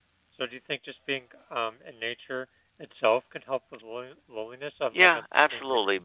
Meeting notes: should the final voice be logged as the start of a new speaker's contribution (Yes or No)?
Yes